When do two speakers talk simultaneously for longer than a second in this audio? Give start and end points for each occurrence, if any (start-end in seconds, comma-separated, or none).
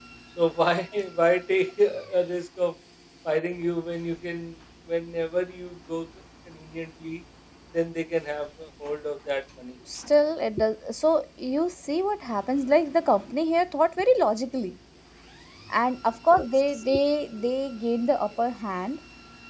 none